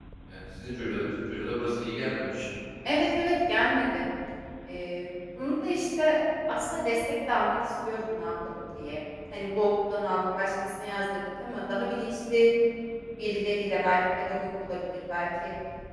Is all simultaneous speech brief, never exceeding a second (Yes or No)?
Yes